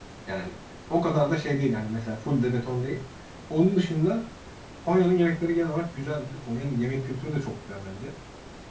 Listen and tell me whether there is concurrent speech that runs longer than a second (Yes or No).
No